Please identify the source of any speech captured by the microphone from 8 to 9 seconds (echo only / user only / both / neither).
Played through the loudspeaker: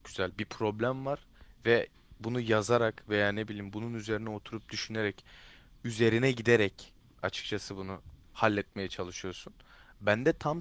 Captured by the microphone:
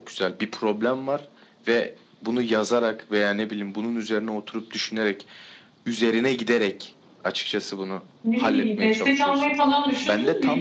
both